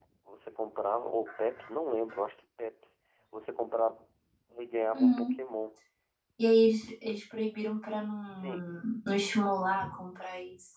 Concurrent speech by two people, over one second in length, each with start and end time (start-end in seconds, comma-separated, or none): none